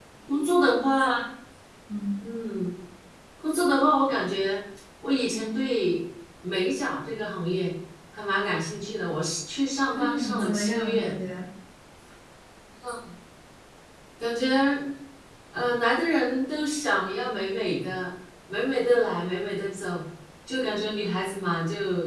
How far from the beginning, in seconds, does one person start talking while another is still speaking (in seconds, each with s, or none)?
9.9 s